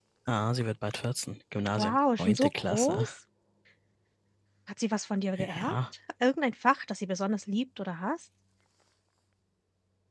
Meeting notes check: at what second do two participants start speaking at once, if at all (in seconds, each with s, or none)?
1.8 s